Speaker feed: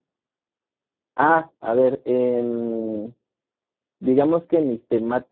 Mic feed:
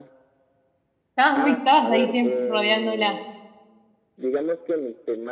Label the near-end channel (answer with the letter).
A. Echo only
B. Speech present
B